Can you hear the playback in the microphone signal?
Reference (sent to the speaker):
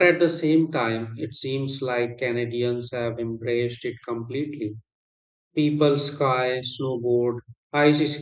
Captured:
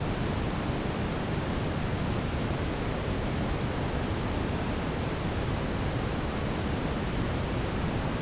No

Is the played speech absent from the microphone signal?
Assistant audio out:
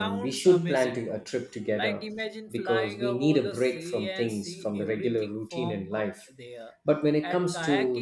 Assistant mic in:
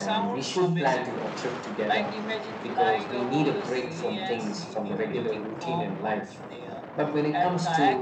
No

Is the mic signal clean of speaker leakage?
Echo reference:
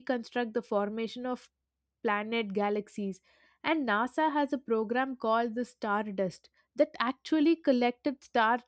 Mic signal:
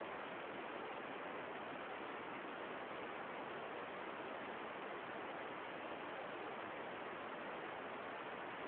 Yes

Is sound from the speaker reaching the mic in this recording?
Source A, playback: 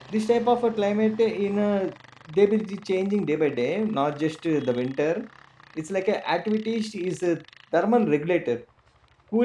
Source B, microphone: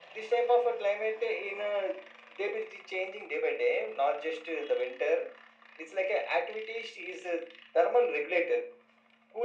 Yes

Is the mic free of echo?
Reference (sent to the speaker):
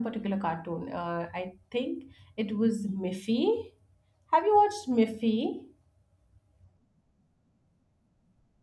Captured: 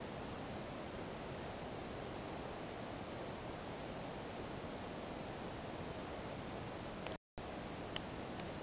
Yes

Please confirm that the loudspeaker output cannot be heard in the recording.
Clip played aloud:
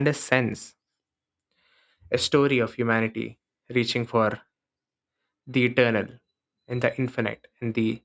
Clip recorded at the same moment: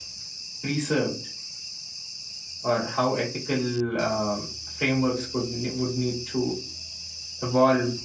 Yes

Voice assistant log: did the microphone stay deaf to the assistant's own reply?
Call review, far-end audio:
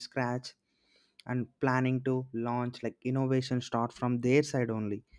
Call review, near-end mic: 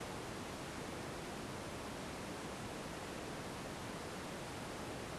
Yes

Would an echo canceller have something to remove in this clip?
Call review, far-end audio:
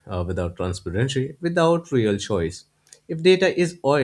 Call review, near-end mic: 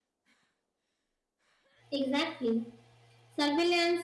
No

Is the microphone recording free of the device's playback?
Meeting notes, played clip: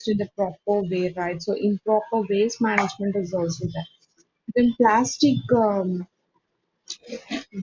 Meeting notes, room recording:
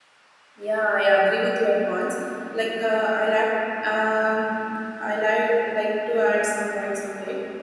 Yes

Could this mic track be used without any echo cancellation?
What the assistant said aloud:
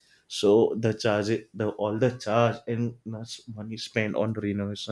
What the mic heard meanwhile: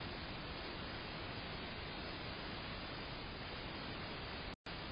Yes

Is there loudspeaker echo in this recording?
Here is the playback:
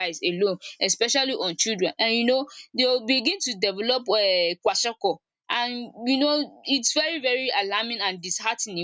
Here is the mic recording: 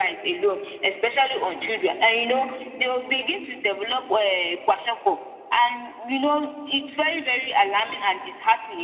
Yes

